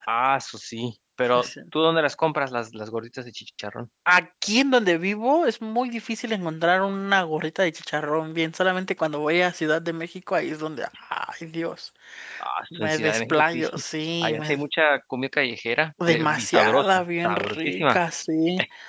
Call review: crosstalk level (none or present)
present